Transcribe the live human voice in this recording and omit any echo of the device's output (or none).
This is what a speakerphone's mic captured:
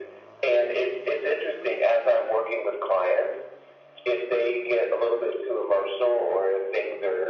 none